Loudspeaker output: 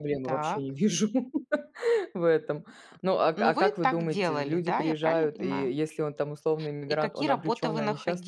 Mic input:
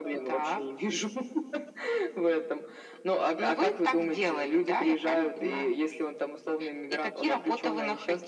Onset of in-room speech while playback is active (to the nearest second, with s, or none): none